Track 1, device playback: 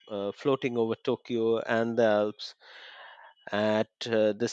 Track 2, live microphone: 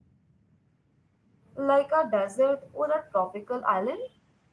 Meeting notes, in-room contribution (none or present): present